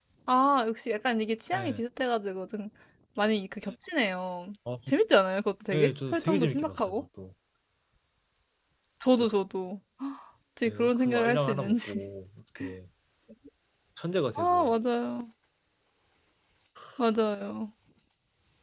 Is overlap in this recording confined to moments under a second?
No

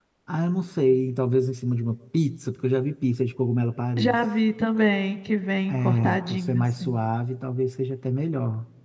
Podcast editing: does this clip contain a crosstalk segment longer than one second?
Yes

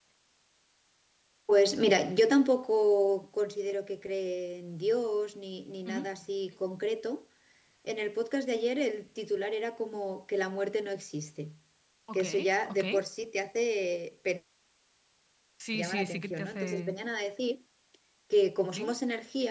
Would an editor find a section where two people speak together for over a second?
Yes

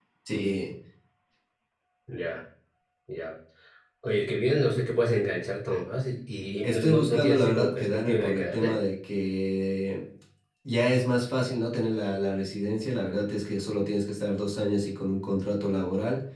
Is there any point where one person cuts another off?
Yes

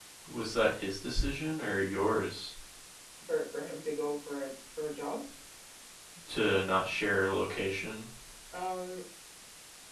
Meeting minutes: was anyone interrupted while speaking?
No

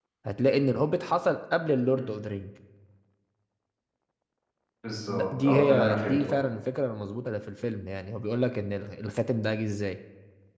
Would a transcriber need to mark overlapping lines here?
Yes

